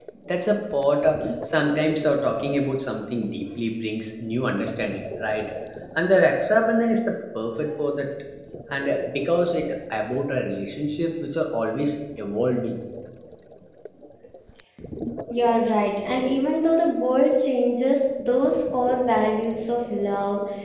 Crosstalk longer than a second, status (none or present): none